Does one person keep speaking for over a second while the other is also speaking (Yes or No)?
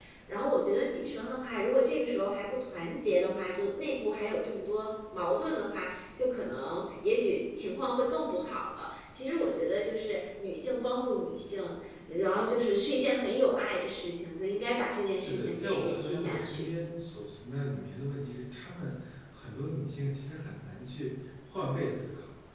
Yes